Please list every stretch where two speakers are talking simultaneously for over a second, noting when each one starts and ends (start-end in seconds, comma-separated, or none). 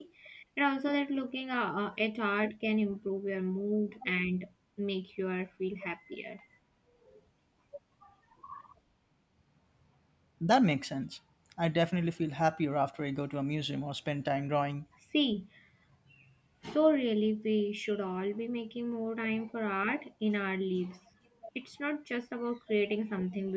none